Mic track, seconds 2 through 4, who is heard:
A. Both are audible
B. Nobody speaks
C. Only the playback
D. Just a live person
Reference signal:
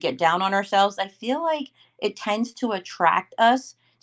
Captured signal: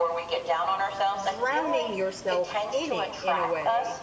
A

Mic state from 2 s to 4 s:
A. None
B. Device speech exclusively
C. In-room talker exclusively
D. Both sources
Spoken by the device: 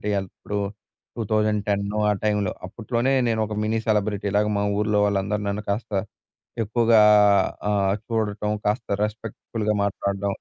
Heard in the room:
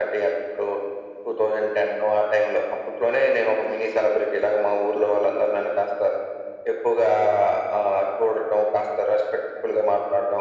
B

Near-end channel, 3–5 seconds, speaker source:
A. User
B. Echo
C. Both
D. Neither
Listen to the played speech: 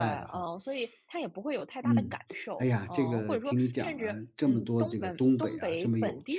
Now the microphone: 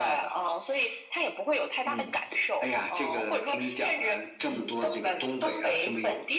B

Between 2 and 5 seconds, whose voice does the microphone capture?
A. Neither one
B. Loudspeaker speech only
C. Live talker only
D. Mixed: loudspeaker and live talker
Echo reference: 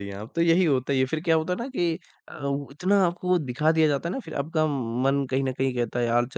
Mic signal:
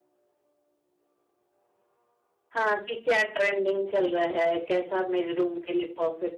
C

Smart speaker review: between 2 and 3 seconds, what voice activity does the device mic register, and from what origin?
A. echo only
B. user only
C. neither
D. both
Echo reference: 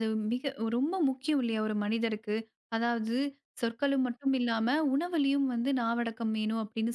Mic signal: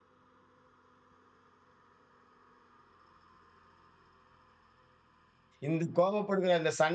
C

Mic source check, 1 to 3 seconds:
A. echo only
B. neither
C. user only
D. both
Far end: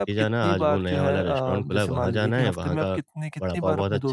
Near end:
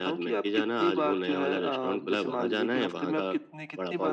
A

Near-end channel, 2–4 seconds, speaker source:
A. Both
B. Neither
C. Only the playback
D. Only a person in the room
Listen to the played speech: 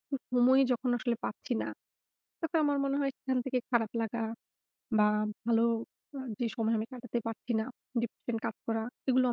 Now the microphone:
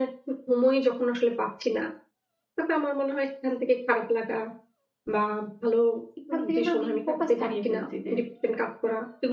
C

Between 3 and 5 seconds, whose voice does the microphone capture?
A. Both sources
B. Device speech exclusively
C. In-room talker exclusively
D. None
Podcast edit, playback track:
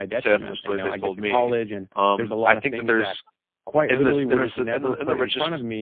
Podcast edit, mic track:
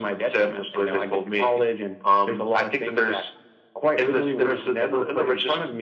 B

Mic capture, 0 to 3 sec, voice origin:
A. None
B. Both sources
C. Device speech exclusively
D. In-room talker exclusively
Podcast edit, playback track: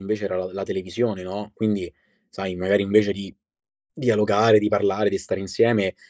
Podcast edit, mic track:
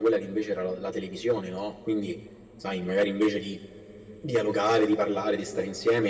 C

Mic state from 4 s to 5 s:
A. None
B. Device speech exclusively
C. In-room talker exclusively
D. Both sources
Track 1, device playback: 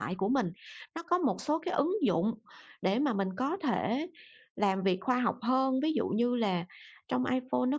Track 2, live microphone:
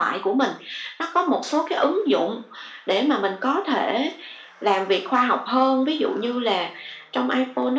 B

